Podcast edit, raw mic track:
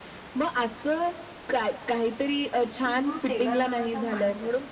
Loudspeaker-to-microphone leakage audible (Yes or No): Yes